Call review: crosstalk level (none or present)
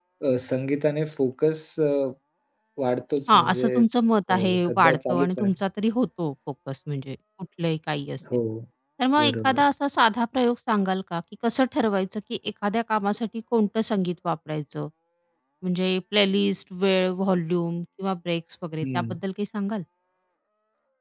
present